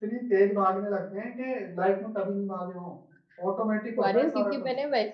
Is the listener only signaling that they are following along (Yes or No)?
No